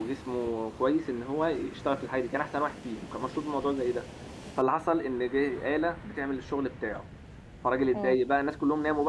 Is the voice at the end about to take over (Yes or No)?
No